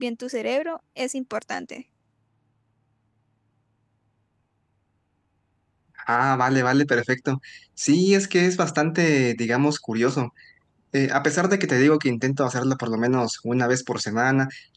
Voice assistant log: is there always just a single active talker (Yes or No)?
Yes